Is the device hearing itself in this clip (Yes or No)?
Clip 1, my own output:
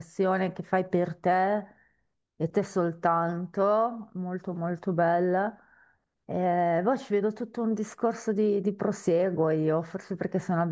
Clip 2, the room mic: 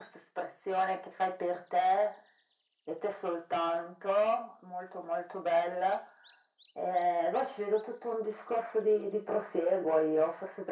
Yes